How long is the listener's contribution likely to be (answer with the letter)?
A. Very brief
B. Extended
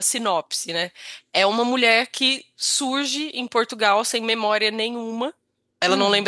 A